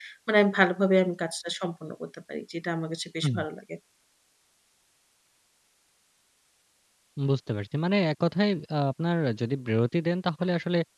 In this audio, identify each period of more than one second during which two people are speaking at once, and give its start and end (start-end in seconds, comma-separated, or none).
none